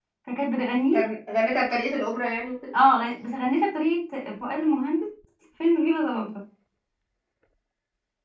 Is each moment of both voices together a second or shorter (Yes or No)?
Yes